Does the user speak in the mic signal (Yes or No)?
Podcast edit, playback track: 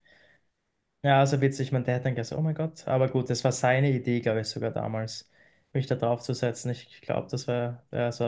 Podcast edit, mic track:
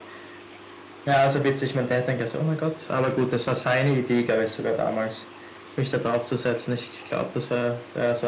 No